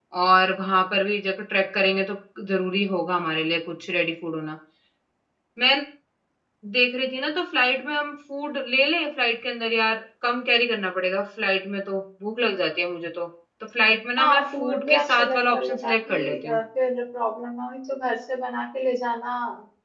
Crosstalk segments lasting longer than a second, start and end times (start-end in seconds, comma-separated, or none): 14.2-16.6